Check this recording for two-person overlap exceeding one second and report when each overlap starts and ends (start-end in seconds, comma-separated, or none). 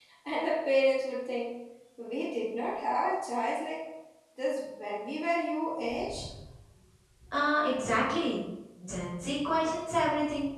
none